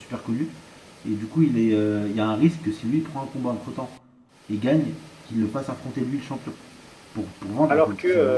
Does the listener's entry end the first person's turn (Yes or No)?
Yes